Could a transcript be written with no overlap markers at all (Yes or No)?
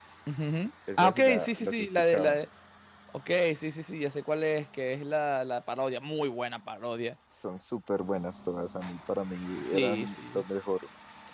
No